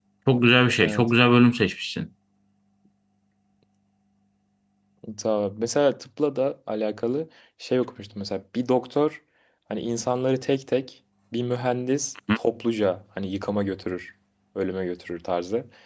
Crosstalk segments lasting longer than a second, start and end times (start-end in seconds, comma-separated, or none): none